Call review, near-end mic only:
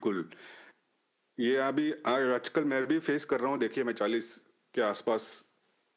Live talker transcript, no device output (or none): none